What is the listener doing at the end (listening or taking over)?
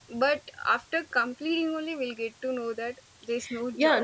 taking over